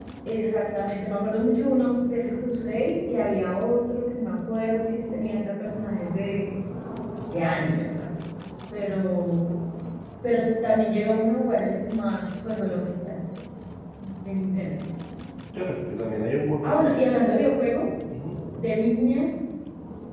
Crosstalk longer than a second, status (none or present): none